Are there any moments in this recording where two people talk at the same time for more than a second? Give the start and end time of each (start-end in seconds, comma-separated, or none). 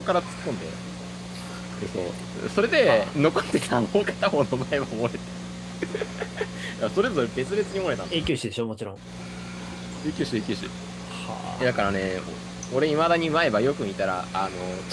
none